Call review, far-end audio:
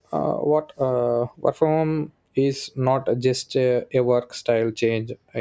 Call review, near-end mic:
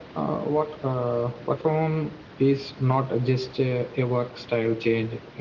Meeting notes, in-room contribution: none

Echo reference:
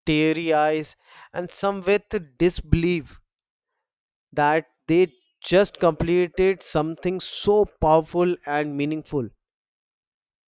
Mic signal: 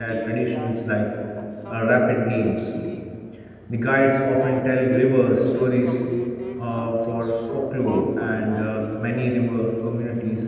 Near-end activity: present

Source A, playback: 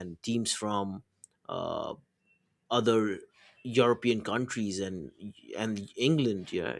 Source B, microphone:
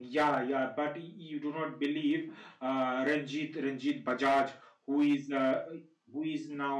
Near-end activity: present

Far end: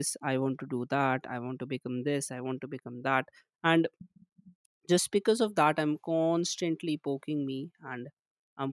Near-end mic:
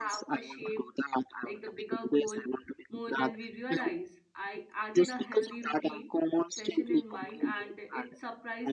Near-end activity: present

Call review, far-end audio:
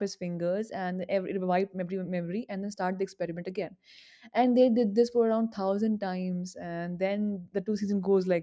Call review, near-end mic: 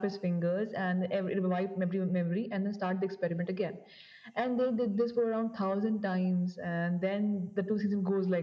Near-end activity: none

